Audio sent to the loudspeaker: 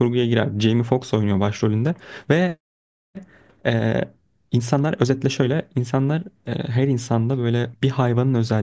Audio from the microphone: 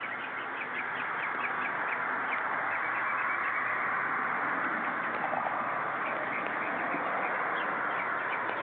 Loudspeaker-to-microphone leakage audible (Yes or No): No